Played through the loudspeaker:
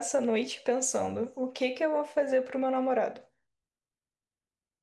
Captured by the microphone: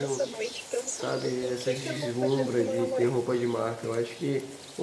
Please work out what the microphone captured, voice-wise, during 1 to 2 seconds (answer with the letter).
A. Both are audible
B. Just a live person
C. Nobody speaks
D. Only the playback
A